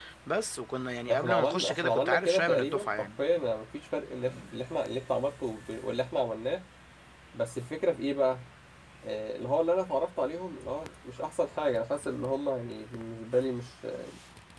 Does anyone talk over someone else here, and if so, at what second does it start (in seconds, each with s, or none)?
1.1 s